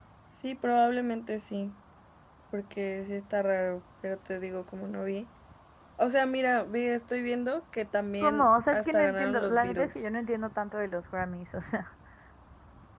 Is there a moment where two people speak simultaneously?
Yes, from 8.2 s

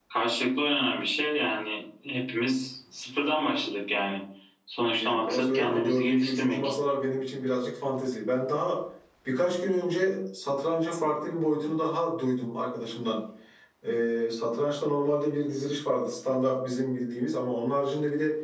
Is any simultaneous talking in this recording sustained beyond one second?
Yes, from 5.0 s

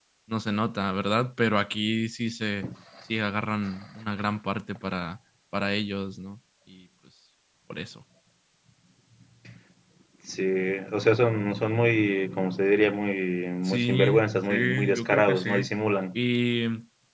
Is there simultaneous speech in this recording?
Yes, from 13.6 s

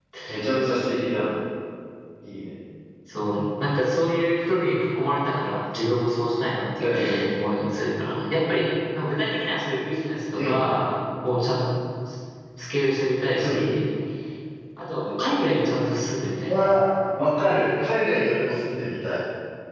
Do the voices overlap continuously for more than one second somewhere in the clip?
No

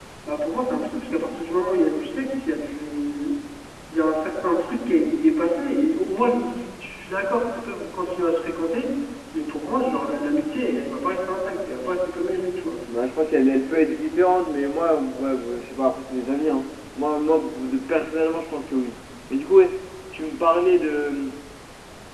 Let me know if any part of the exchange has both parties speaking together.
No

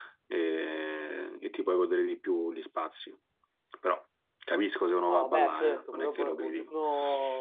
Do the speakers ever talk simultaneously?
Yes, from 5.1 s

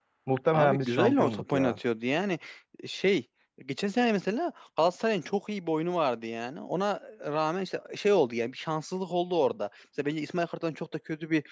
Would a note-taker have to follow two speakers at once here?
Yes, from 0.5 s

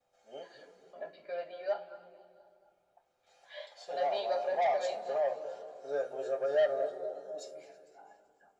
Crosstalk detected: Yes, from 3.9 s

